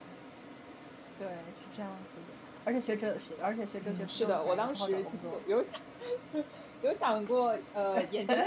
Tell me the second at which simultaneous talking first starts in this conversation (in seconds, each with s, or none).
3.8 s